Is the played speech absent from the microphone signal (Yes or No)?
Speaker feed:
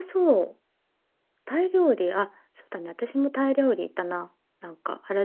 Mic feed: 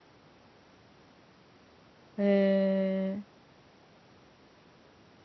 Yes